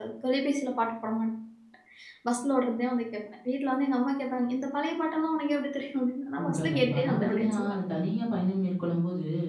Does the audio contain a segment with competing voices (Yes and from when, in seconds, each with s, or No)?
Yes, from 6.4 s